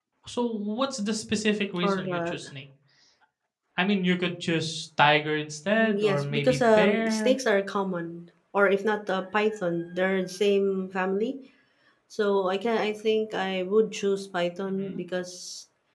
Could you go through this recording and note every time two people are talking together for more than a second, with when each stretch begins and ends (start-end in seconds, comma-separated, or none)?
5.7-7.3